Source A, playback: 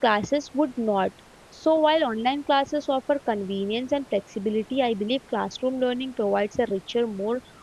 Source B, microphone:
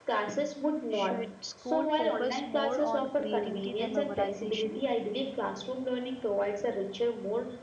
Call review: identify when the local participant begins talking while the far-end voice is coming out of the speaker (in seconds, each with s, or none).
0.9 s